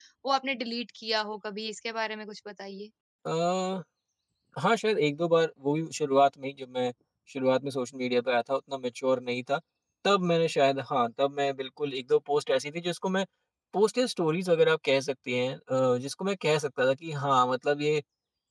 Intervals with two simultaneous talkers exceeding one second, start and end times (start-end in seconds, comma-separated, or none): none